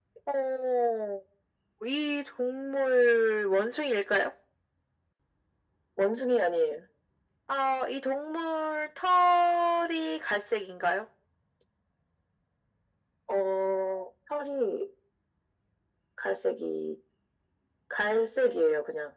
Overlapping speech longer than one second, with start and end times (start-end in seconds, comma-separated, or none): none